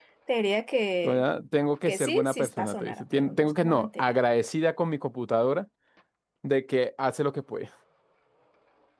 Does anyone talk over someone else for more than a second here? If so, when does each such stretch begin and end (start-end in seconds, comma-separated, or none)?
1.9-4.1